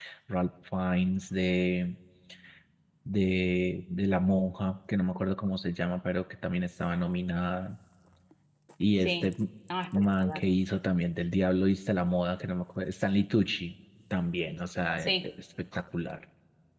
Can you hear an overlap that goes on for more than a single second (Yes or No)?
No